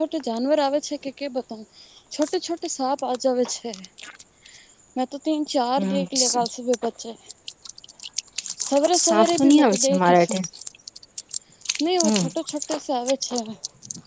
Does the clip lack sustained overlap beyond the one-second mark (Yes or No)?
No